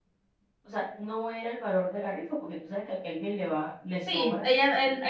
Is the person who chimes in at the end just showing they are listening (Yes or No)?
No